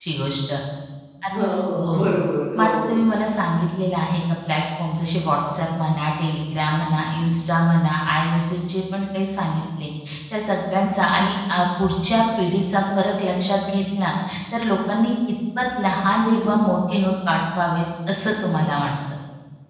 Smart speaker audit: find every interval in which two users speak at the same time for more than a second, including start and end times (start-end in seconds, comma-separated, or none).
none